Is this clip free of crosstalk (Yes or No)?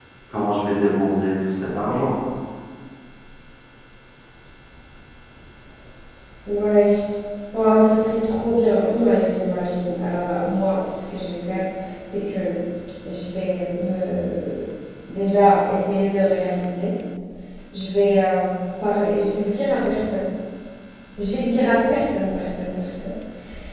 Yes